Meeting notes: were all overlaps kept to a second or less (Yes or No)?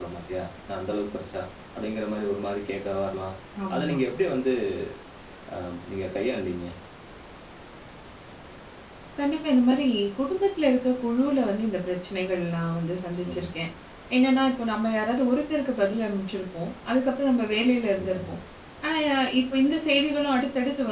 Yes